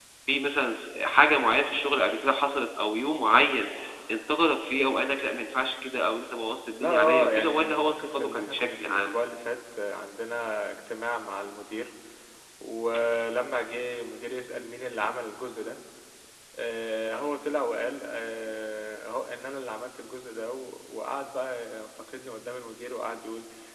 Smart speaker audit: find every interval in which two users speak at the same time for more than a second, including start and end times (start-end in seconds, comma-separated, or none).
6.8-9.1